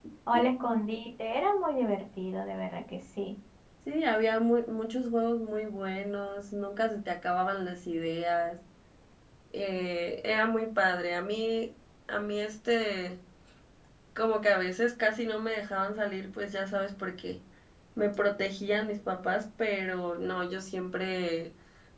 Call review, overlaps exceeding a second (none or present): none